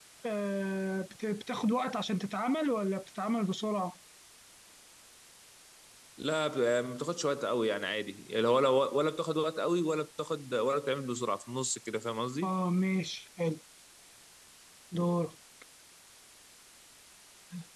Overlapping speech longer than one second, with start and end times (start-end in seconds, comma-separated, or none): none